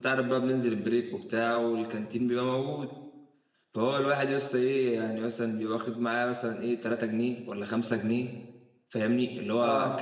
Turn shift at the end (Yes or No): No